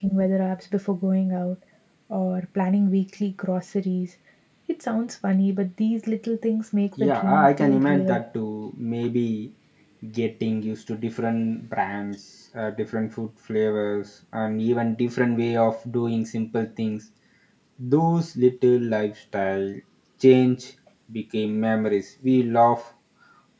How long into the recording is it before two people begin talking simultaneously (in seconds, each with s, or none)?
7.0 s